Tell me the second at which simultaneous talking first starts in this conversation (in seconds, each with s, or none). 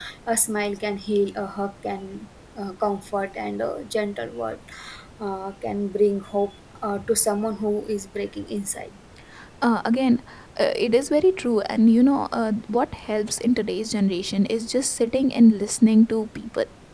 none